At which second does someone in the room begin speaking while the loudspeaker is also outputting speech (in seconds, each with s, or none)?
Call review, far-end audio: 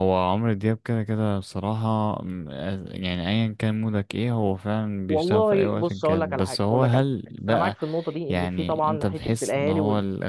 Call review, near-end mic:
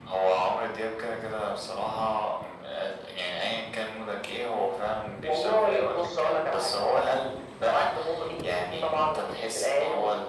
none